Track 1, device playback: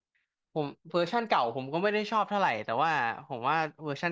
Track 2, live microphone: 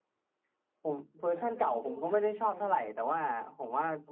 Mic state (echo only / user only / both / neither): both